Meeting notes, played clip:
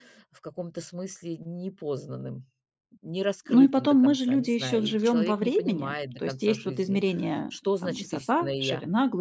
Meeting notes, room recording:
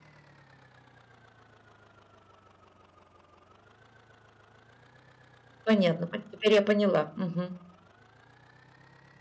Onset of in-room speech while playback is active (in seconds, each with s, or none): 5.6 s